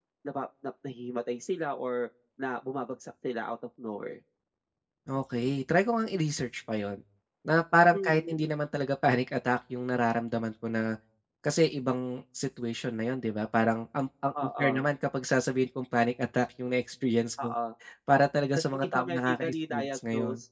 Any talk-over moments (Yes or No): Yes